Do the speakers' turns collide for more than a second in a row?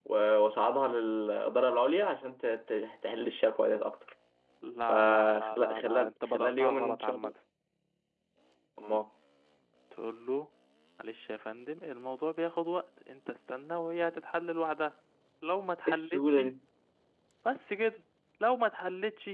Yes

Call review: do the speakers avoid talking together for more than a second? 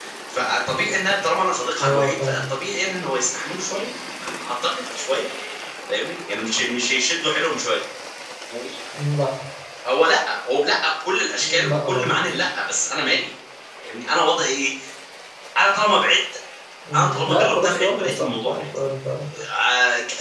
No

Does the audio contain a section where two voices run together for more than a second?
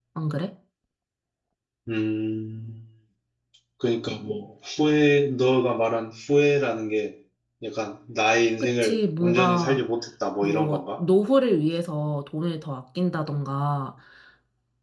Yes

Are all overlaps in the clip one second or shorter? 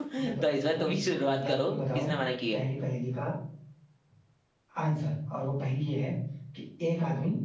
No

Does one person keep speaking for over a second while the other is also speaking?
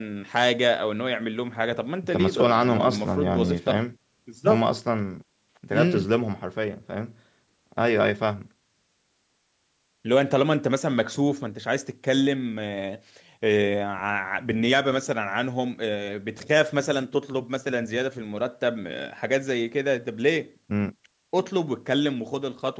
Yes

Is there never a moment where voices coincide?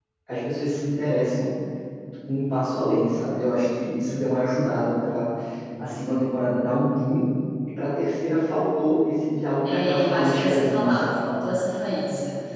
No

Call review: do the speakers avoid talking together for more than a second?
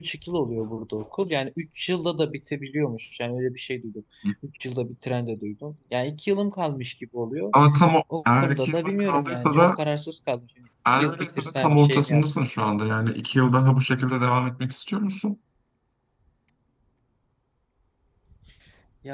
No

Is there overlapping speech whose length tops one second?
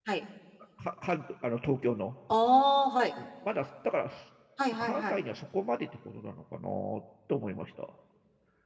No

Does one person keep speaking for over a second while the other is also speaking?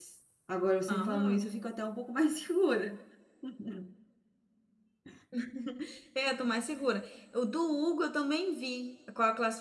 No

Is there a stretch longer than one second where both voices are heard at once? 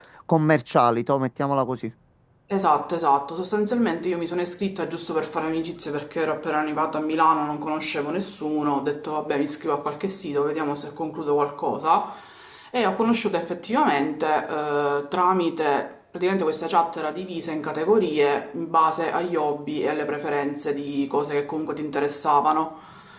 No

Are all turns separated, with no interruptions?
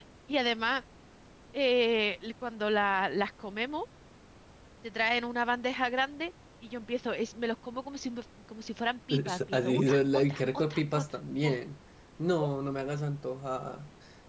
No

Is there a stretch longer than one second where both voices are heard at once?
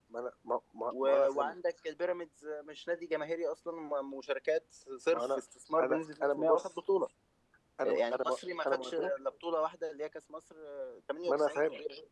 Yes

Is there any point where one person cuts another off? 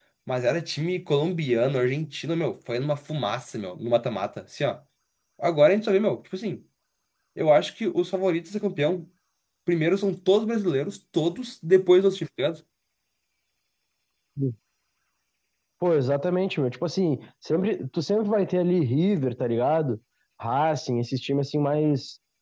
No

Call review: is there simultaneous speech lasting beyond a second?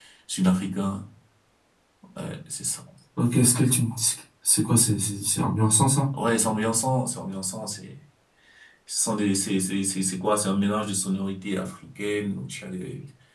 No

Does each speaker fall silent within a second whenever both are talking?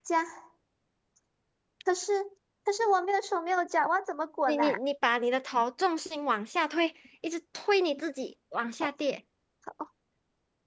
Yes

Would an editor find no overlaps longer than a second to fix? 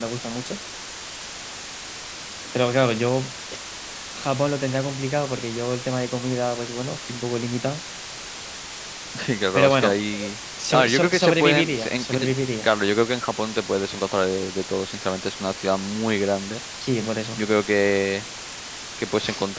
No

